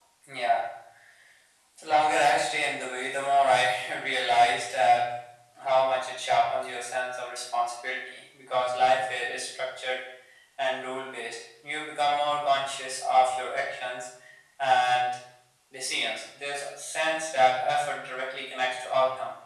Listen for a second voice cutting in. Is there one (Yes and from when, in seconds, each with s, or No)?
No